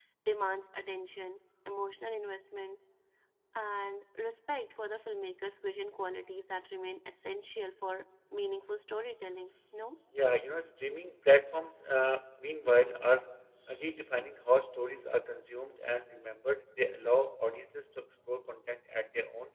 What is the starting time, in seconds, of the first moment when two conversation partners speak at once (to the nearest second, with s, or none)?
none